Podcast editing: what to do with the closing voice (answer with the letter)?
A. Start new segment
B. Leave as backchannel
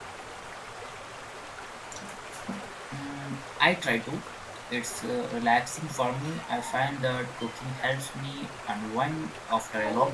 A